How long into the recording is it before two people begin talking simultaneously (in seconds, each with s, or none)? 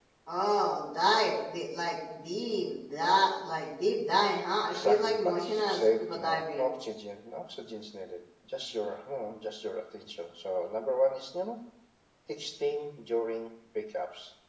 4.6 s